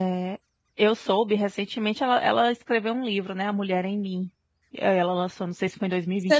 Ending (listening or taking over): taking over